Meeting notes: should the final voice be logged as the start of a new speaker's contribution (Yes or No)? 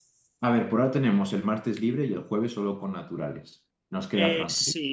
Yes